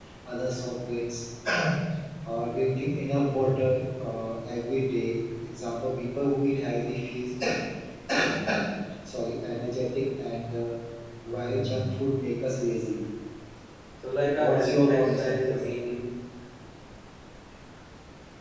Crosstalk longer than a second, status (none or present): present